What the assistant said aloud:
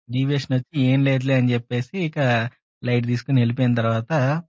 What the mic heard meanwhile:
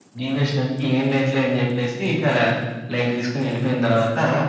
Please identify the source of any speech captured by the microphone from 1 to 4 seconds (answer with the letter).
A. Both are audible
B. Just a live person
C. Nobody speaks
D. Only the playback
D